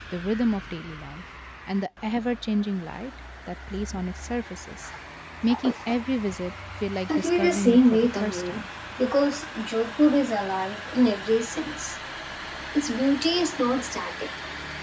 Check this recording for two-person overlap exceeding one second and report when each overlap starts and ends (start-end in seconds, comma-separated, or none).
7.2-8.6